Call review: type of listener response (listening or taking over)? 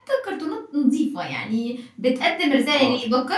listening